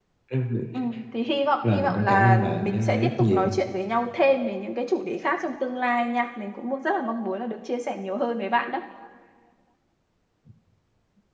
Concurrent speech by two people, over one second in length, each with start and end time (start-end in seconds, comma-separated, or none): 1.7-3.5